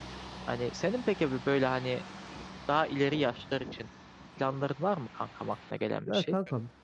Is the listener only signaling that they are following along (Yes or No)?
No